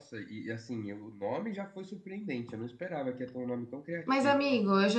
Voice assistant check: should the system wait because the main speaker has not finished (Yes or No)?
No